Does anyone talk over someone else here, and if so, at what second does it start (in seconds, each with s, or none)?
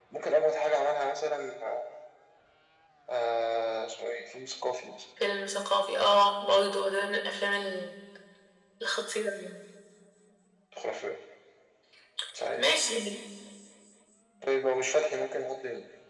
none